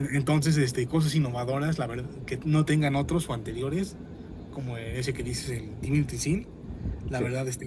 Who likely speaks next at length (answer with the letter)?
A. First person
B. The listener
A